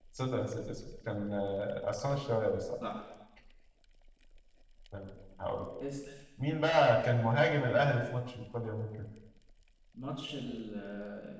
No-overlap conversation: Yes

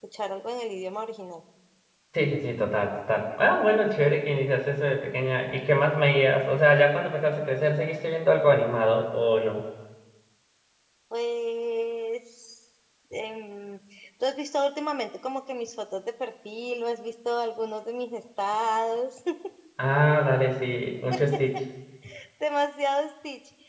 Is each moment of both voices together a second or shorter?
Yes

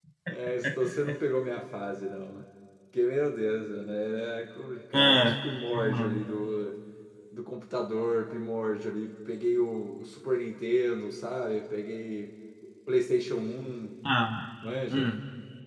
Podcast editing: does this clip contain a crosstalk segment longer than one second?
No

